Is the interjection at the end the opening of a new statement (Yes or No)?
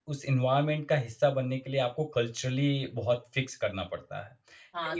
Yes